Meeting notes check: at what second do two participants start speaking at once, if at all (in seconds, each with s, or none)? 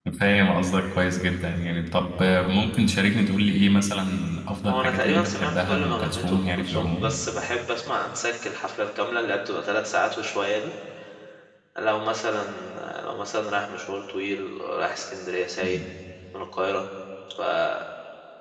4.7 s